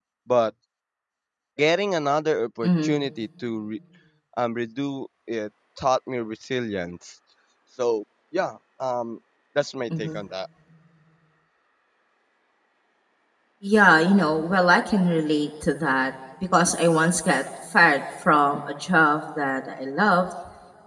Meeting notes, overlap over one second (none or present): none